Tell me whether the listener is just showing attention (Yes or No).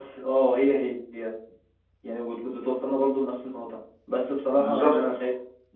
Yes